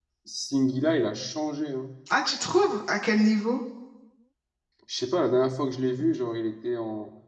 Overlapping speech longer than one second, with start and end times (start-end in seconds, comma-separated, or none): none